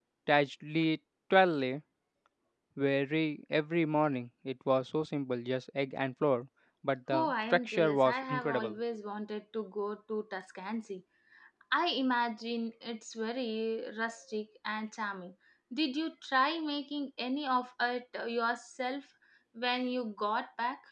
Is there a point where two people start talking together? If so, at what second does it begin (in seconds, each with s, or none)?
7.1 s